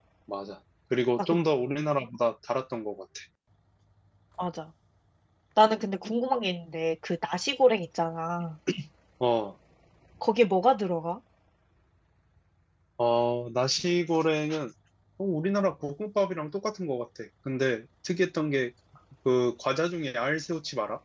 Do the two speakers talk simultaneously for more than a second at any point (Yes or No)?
No